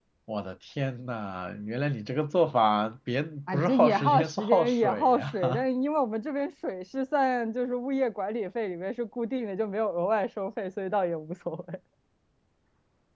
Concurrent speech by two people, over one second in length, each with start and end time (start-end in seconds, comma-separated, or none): 3.5-5.6